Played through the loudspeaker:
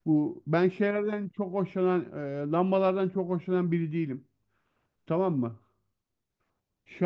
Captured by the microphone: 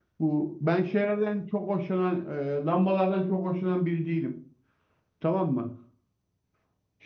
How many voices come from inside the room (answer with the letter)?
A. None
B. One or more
A